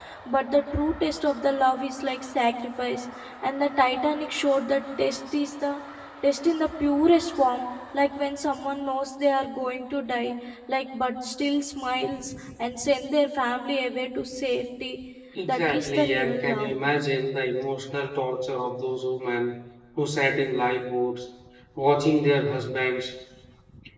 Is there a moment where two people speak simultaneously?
Yes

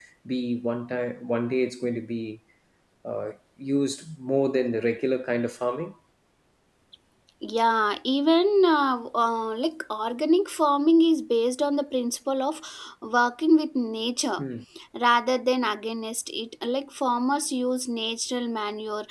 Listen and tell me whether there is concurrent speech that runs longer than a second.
No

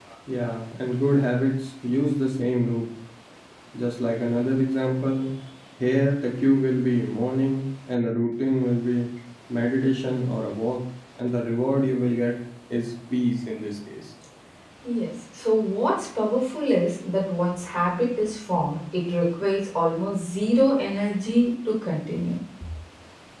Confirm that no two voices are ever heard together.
Yes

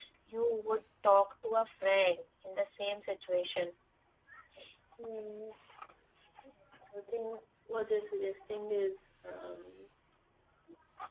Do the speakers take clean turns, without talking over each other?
Yes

